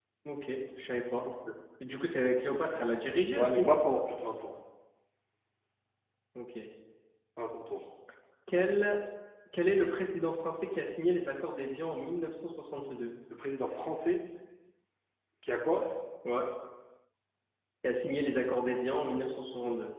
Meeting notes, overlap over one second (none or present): none